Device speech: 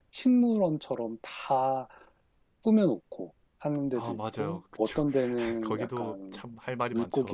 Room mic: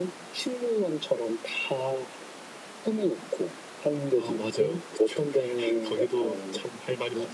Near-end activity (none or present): none